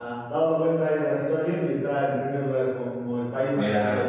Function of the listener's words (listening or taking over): taking over